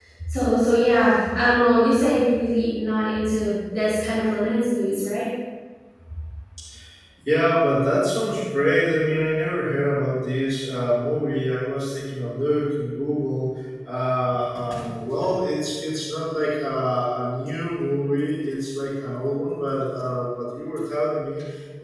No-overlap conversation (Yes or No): Yes